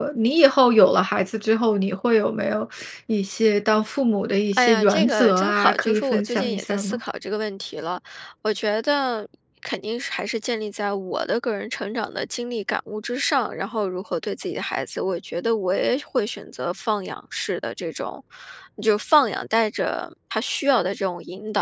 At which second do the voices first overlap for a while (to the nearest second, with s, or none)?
5 s